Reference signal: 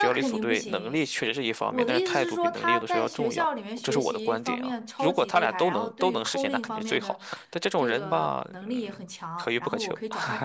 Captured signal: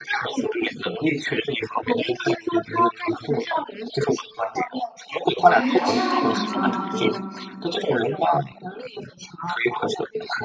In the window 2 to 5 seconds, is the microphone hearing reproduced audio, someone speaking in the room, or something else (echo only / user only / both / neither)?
echo only